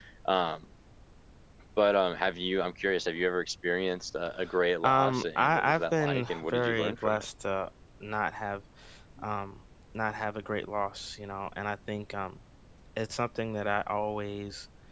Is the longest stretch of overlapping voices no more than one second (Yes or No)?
No